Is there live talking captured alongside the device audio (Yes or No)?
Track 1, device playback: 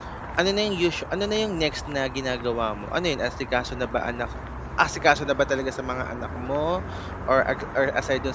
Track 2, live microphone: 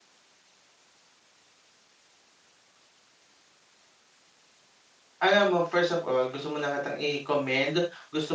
Yes